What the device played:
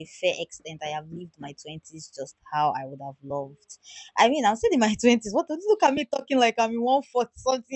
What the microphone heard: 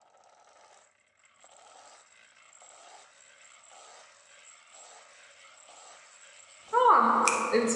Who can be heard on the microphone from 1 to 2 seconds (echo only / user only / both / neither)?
neither